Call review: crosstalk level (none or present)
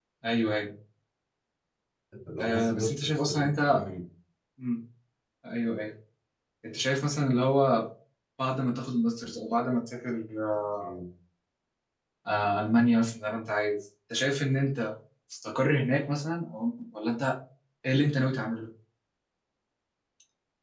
present